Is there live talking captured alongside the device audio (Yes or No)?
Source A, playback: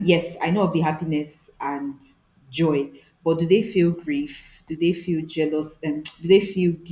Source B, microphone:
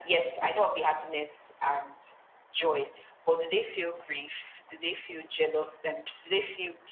No